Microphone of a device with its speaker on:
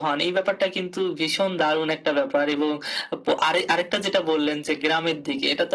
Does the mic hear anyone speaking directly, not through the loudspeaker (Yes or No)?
No